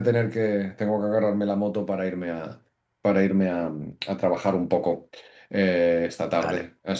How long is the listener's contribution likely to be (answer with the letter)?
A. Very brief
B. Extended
A